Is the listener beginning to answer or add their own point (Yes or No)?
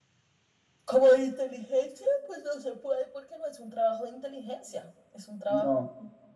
Yes